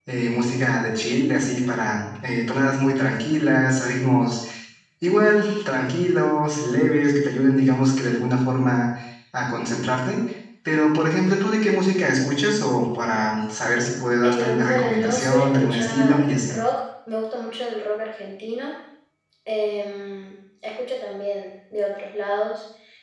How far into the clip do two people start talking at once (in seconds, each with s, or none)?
14.2 s